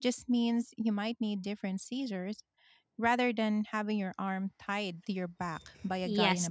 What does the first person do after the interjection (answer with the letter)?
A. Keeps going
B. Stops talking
B